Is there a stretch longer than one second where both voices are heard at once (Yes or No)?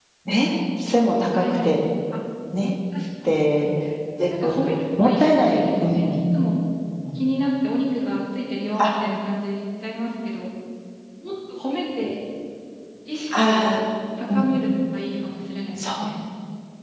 Yes